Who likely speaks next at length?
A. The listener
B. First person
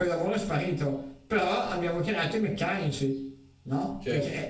A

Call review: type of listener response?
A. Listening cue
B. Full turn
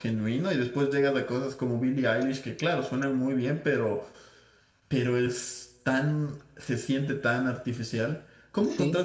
A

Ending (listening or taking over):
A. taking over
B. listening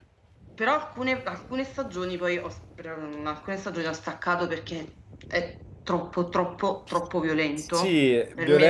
A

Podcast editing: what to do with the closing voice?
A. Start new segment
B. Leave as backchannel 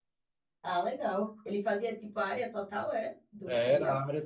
A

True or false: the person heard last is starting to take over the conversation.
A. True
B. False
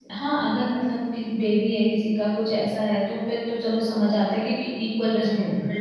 A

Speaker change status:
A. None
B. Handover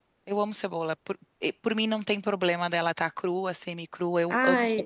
B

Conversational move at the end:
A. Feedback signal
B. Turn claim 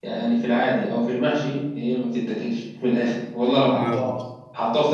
A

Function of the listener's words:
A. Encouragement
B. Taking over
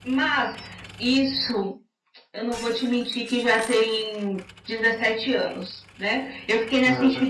A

